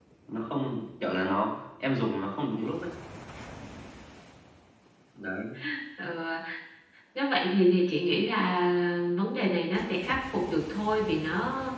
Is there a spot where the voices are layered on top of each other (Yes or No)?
No